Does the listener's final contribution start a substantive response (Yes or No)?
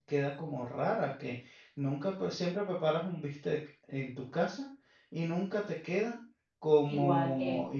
No